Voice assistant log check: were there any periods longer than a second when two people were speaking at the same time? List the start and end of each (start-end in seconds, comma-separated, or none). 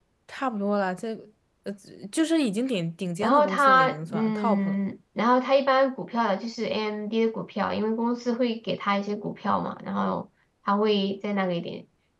3.2-4.8